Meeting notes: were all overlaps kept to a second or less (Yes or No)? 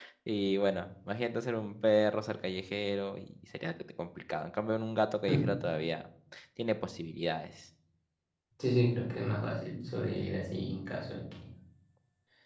Yes